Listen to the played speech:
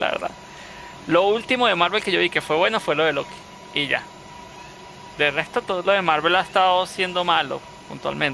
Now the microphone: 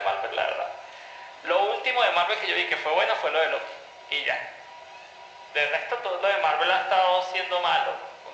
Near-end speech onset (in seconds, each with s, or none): none